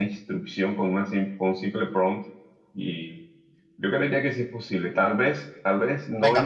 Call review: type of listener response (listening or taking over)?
taking over